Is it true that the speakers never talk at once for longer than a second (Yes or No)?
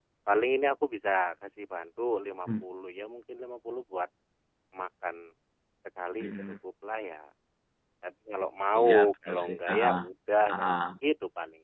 No